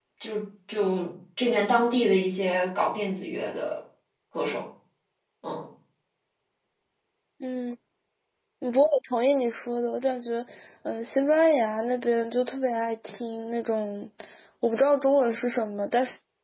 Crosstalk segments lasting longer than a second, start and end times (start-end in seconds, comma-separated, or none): none